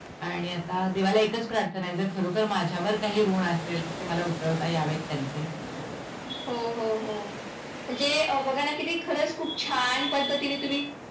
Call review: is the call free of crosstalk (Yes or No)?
Yes